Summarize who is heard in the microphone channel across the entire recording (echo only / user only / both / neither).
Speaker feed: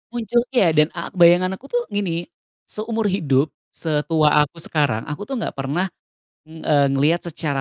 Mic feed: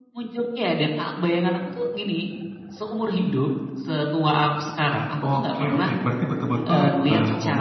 both